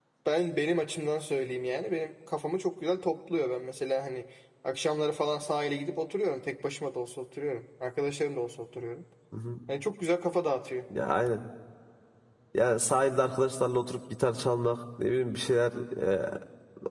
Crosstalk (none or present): none